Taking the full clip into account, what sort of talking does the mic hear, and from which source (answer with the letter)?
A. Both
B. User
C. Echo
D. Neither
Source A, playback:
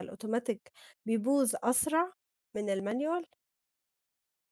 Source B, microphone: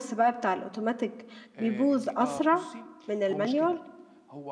A